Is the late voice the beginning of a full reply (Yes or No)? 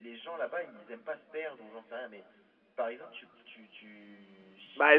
Yes